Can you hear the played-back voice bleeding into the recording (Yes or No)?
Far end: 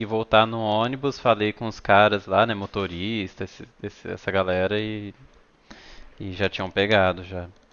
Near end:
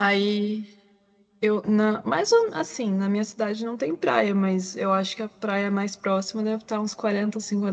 No